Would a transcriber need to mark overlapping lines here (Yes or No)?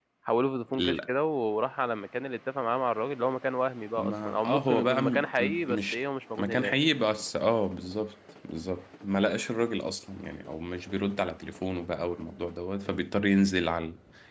Yes